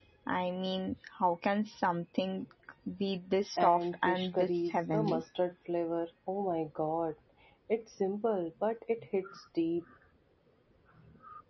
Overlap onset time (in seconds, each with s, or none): 3.6 s